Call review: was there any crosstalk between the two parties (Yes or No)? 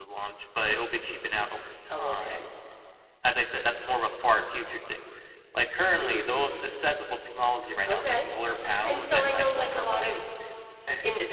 Yes